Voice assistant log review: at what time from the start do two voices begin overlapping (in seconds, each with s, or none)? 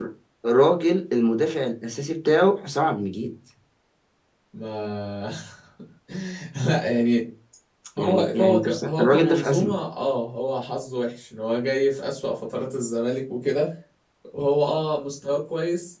8.0 s